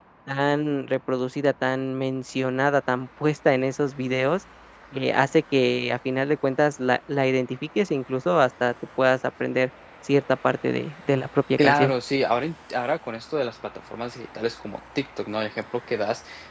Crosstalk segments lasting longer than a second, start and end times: none

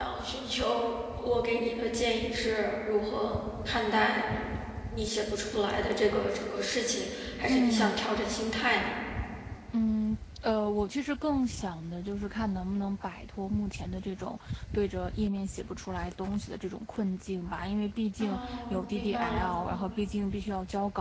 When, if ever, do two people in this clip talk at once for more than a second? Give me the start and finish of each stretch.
18.2-19.5

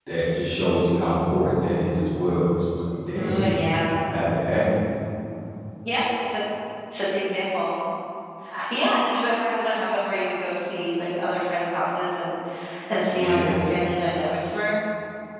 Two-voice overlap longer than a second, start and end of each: none

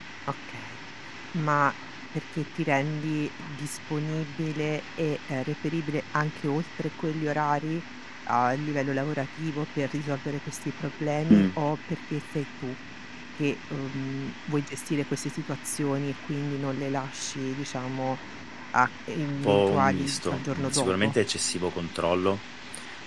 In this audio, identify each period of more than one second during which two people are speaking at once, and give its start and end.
19.4-21.2

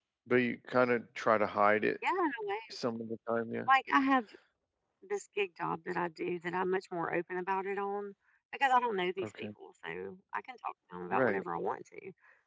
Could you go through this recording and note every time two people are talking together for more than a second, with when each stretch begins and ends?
none

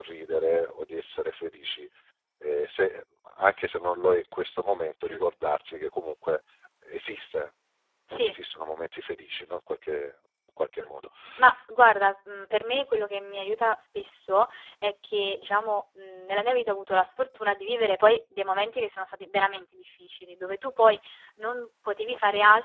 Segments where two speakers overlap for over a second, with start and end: none

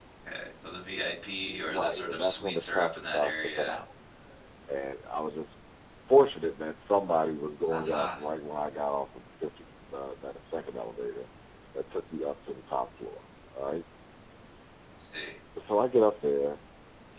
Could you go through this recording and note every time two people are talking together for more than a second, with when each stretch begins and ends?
1.6-3.8

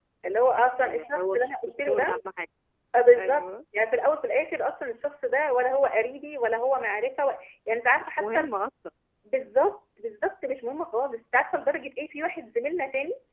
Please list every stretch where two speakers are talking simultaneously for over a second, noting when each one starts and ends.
0.8-2.1

